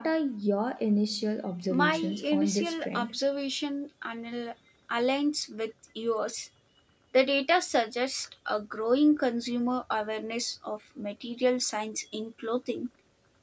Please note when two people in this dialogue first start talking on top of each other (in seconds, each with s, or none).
1.7 s